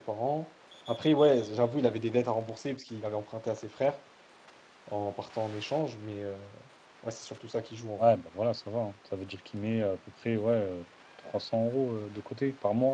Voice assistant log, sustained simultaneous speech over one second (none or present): none